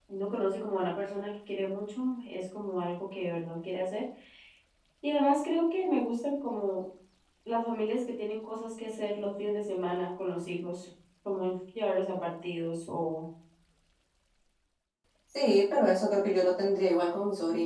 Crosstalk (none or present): none